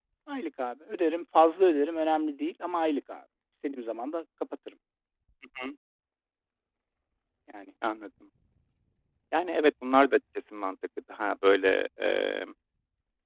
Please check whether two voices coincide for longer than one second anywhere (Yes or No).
No